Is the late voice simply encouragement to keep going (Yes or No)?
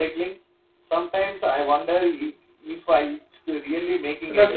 No